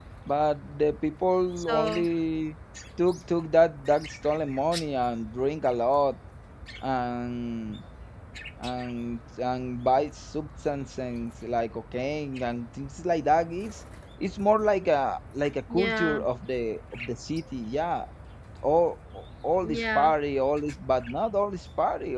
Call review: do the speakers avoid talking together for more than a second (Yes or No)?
Yes